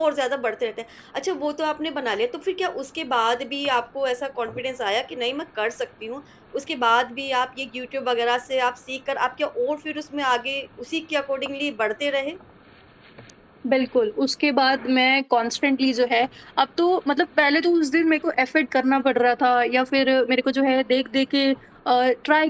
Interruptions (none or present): none